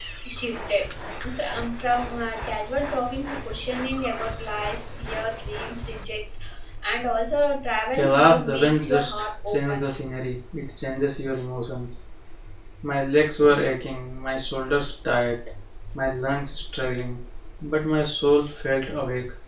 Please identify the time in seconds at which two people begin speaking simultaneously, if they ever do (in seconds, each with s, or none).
7.9 s